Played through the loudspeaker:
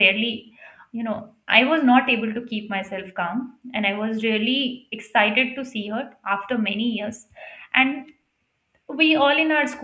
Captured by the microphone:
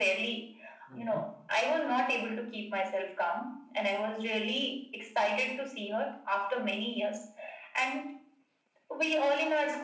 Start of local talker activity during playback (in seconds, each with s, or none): 0.9 s